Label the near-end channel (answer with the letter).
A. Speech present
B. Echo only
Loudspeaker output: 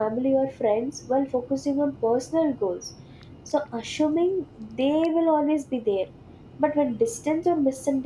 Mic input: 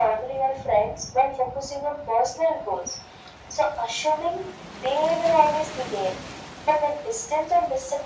B